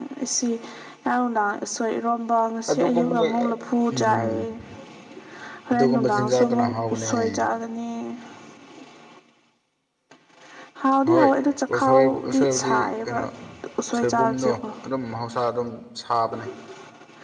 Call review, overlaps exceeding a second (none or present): present